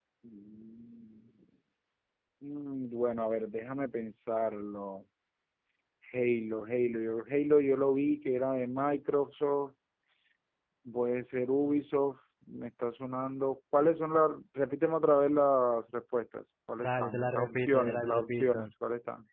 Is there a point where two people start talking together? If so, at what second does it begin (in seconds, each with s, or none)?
16.8 s